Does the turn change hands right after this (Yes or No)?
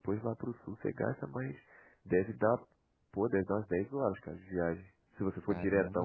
Yes